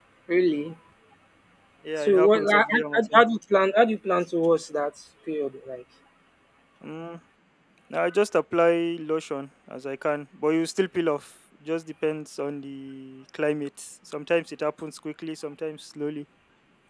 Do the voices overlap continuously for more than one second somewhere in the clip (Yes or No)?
Yes